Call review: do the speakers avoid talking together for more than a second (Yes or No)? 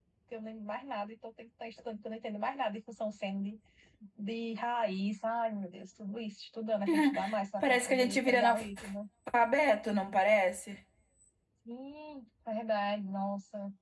No